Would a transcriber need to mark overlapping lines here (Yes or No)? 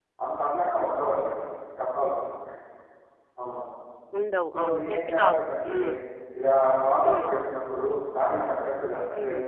Yes